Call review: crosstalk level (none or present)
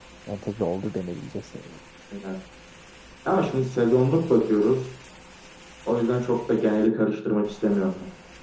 none